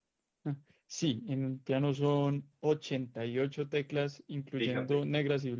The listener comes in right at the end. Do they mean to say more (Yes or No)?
No